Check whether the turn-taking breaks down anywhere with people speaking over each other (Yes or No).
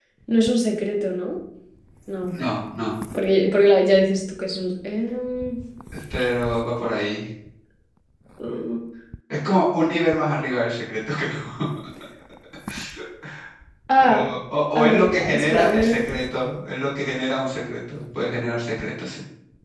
Yes